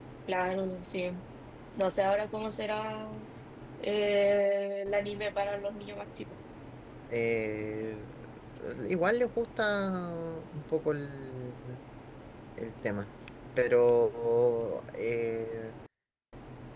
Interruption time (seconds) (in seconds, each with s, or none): none